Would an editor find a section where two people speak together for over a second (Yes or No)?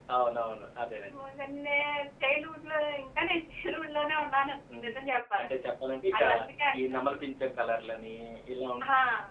No